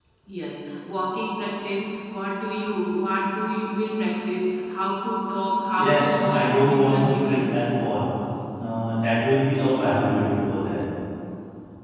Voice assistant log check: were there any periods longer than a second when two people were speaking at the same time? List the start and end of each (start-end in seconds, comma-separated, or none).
5.8-7.7